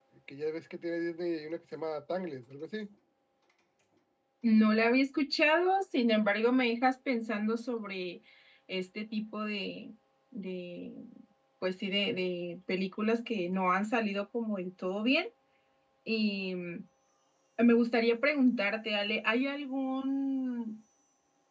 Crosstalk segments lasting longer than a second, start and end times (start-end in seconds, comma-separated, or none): none